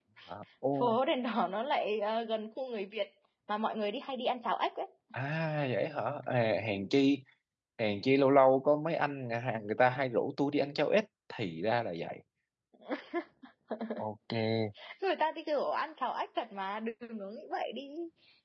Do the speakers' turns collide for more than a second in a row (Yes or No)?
No